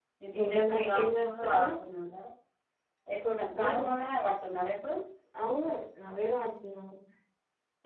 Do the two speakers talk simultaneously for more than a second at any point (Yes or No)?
Yes